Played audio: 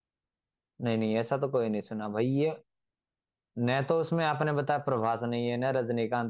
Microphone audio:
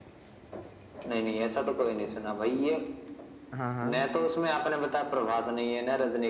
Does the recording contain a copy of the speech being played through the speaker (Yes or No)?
Yes